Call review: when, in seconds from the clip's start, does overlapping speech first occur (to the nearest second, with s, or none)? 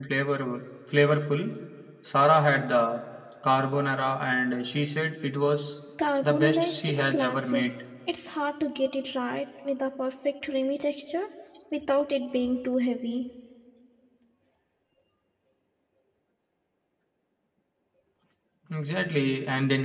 6 s